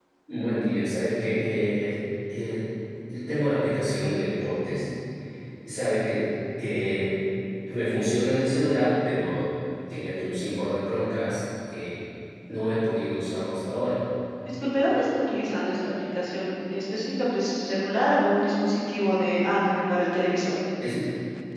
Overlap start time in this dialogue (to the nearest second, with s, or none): none